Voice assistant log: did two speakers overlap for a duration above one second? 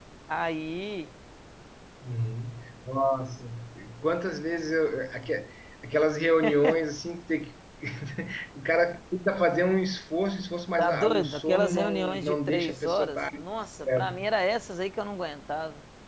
Yes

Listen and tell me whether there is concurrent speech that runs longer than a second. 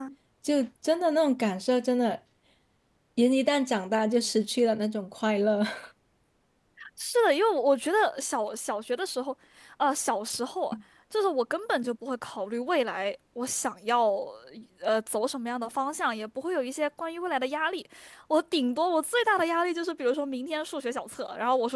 No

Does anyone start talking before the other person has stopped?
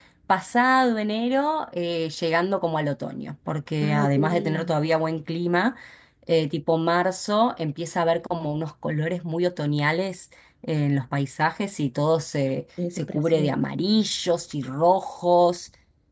Yes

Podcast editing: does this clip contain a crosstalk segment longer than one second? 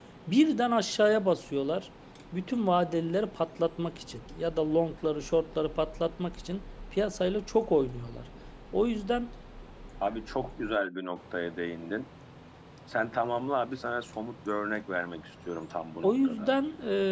No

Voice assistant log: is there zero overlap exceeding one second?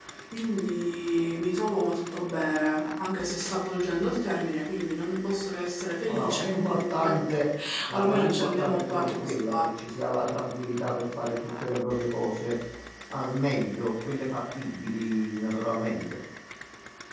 No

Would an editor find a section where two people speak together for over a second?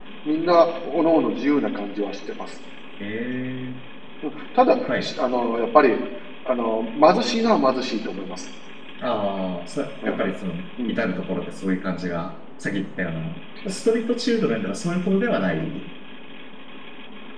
No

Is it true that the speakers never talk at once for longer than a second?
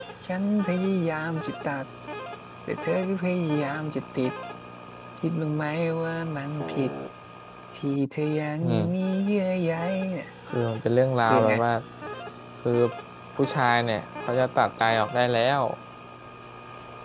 Yes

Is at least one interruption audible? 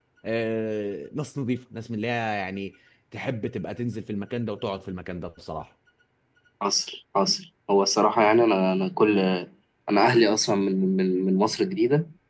No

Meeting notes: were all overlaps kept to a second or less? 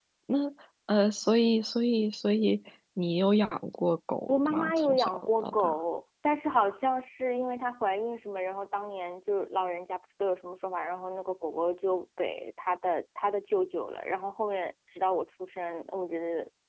No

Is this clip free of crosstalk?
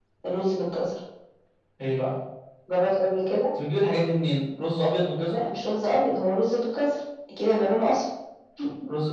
Yes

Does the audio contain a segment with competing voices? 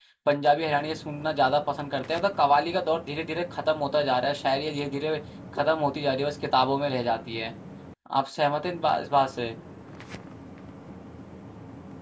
No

